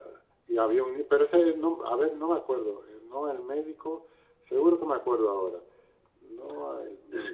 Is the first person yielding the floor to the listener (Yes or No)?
Yes